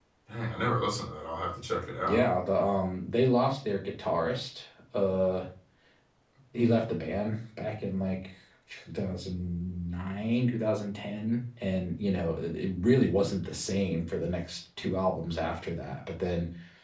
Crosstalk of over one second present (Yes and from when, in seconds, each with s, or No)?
No